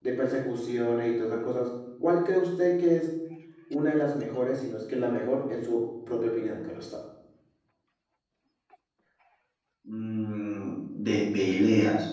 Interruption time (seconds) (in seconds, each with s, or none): none